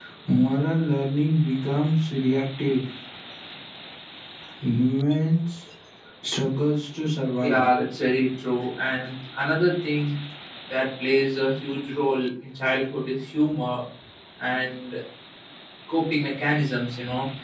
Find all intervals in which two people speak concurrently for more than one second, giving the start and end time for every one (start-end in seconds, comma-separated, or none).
none